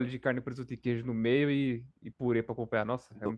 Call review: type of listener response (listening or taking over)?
taking over